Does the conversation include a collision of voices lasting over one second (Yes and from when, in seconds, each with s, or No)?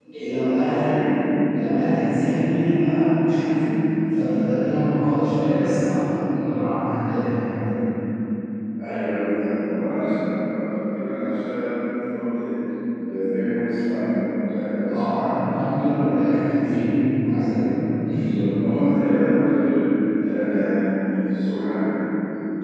No